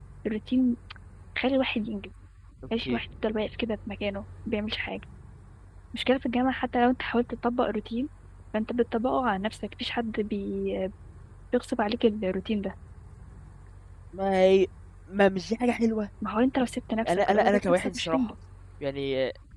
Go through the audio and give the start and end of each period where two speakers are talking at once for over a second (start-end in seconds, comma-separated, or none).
17.1-18.3